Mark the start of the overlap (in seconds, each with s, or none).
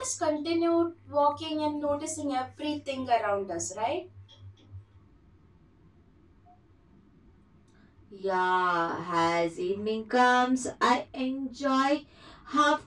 none